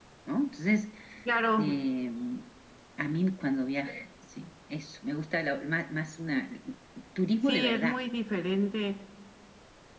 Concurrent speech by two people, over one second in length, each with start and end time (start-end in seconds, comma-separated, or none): none